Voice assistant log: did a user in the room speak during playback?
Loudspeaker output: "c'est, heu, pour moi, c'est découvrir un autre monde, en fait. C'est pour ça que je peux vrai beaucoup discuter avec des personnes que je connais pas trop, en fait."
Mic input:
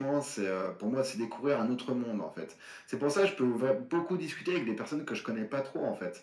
No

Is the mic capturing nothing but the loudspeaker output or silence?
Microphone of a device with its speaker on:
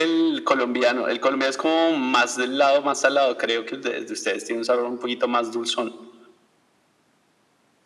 Yes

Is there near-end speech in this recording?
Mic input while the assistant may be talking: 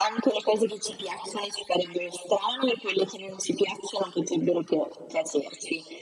No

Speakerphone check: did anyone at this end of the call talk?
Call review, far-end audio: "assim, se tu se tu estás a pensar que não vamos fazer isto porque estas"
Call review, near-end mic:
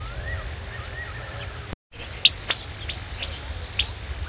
No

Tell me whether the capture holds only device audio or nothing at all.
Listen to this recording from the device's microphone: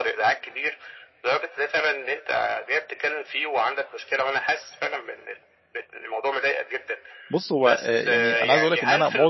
No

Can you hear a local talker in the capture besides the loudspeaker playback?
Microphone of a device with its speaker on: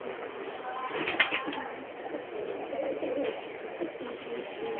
No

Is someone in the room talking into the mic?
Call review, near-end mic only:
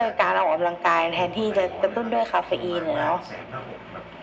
Yes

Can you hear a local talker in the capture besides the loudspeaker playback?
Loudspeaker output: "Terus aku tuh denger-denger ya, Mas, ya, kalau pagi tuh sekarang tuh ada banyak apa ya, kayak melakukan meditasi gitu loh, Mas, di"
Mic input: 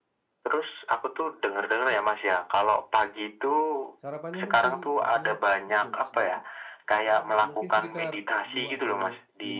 Yes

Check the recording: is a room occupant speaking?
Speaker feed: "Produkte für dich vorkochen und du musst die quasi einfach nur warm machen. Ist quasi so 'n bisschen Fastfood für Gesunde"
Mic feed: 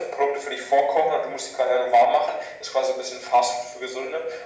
No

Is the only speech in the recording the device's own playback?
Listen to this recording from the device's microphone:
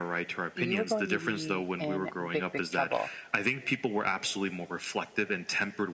No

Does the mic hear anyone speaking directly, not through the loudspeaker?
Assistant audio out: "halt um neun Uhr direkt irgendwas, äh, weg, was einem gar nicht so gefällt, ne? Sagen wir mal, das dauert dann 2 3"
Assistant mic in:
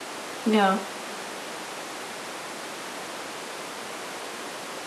Yes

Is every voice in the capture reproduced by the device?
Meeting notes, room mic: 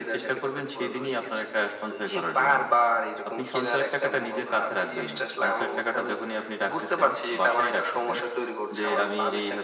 Yes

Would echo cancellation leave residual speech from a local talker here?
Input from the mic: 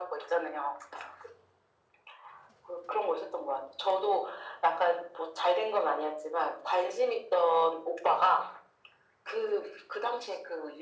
No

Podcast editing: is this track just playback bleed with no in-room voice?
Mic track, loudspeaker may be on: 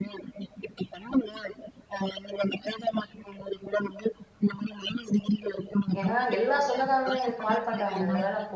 No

